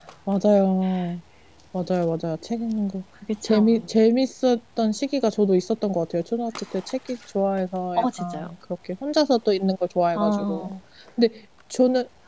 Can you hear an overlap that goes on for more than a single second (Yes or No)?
No